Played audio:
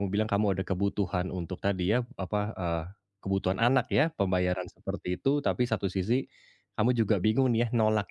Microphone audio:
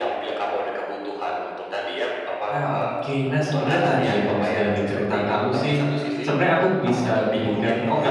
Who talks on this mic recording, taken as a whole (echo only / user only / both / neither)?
both